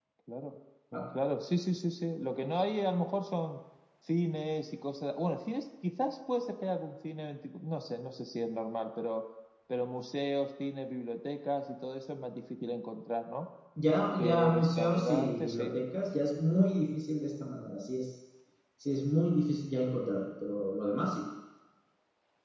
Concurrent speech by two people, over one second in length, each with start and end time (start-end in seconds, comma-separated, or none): 14.2-15.8